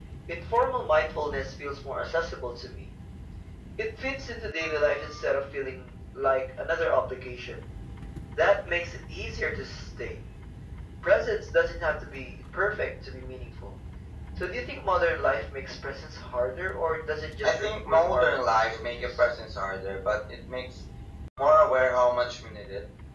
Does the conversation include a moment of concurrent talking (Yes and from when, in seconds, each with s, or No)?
Yes, from 17.4 s